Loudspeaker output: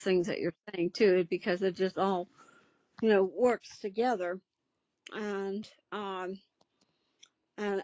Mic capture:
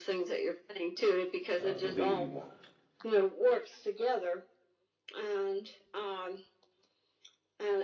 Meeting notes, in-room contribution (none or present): present